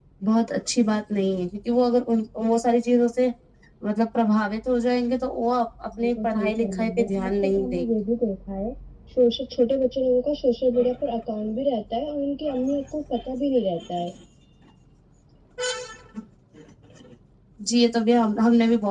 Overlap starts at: 6.0 s

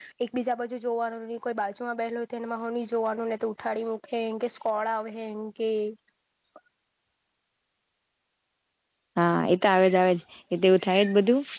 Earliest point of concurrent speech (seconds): none

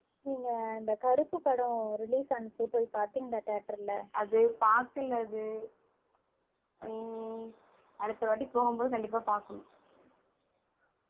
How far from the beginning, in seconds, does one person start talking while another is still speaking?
none

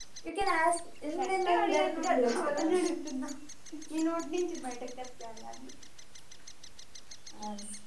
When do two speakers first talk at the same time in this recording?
1.2 s

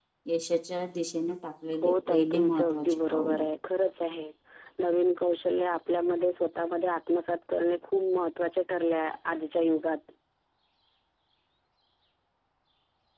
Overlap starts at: 1.8 s

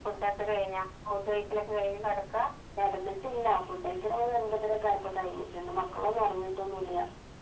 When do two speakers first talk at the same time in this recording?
none

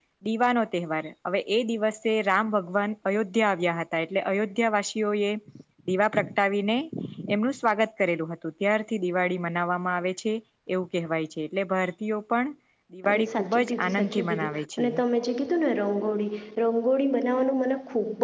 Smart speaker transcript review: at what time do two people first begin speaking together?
13.1 s

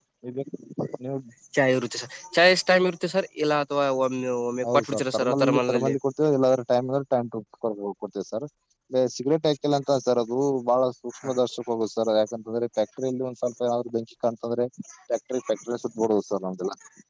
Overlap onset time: 4.6 s

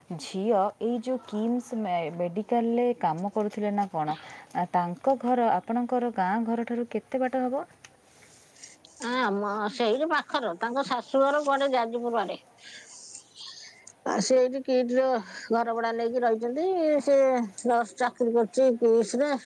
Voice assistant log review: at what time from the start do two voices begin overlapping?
none

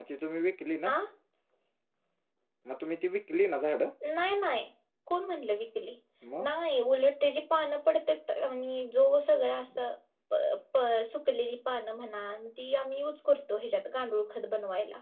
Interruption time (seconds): none

